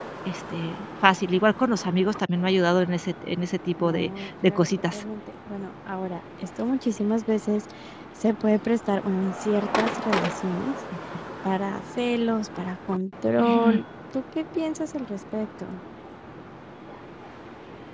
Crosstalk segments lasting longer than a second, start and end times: 3.8-5.0

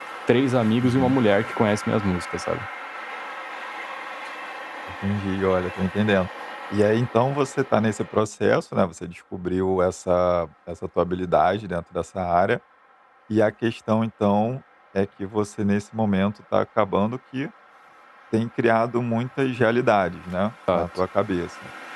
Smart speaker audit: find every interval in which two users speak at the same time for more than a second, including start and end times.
none

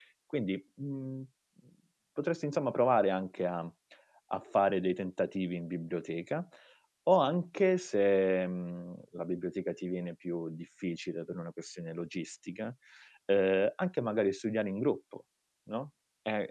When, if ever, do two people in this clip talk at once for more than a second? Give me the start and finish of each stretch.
none

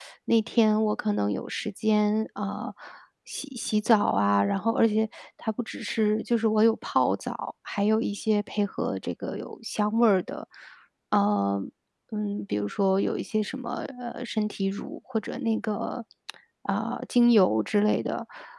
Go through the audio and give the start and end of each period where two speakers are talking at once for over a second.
none

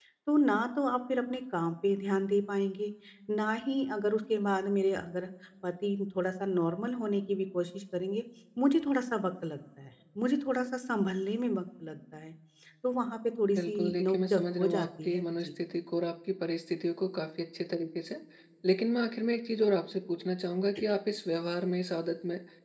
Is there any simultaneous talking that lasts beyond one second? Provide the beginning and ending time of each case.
13.6-15.4

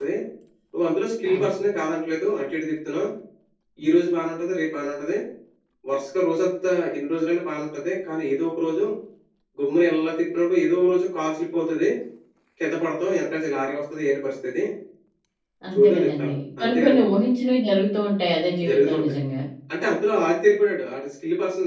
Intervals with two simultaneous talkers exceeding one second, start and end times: none

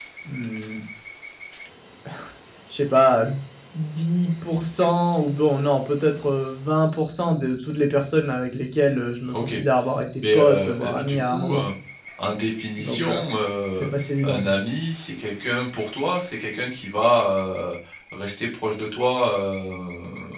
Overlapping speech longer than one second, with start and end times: 10.3-11.7

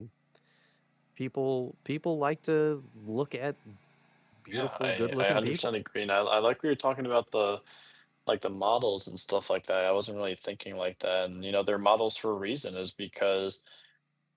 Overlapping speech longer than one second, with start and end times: 4.5-5.7

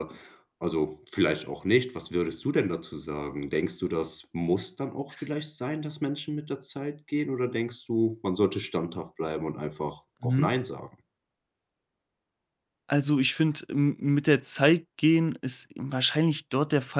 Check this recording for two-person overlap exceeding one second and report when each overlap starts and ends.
none

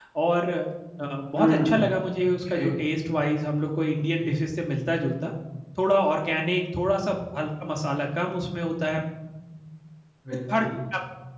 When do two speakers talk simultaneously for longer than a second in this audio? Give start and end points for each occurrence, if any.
none

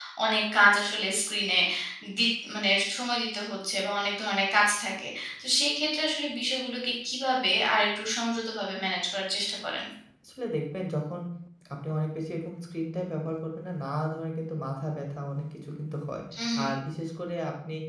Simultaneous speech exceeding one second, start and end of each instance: none

